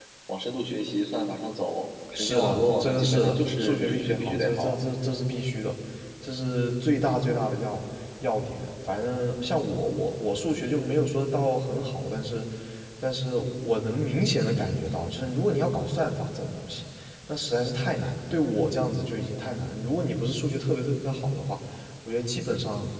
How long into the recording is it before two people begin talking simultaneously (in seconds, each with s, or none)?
2.1 s